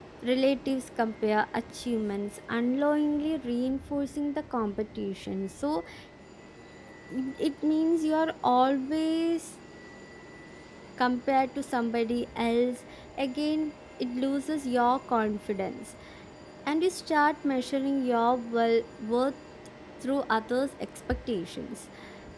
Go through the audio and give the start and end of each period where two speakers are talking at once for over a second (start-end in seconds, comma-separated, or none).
none